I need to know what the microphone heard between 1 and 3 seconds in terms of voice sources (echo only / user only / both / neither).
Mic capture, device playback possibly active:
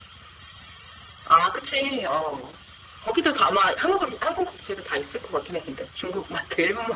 echo only